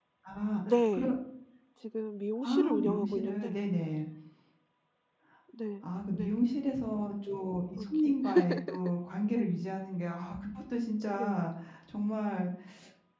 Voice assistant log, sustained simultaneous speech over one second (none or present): present